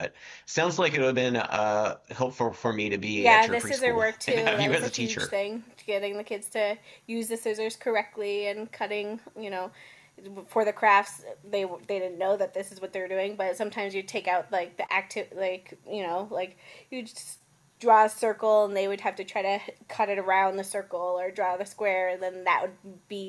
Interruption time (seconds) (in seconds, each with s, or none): 3.2 s